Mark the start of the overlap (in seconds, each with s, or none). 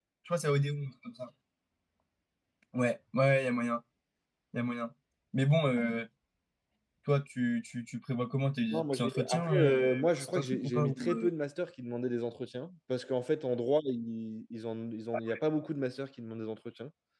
8.7 s